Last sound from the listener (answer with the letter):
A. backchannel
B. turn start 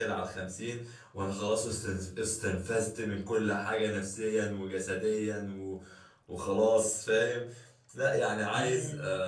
A